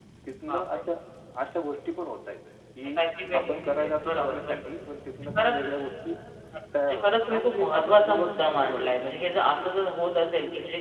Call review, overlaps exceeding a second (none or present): present